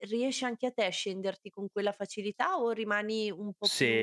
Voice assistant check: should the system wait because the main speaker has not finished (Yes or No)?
No